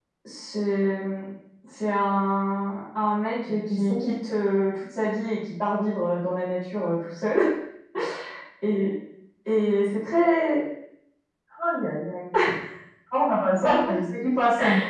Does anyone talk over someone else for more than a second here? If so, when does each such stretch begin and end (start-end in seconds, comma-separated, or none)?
none